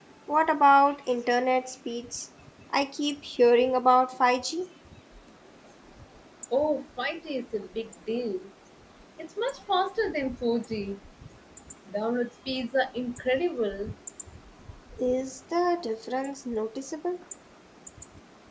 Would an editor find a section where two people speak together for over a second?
No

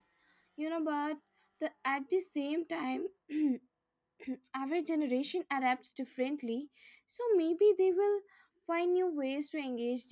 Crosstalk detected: No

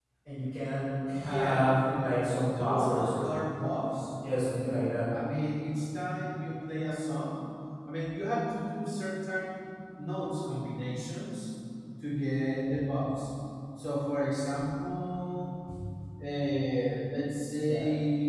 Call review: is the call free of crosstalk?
No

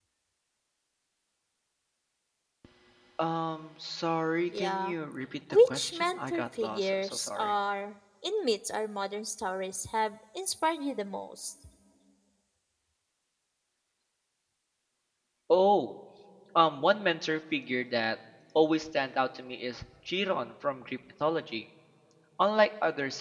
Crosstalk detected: Yes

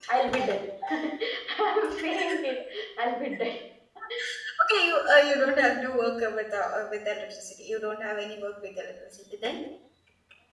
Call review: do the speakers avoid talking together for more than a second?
Yes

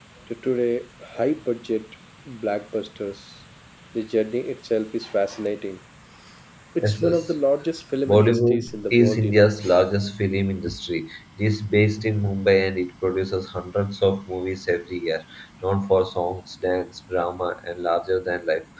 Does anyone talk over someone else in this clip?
Yes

